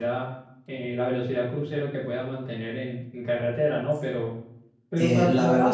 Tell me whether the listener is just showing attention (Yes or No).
No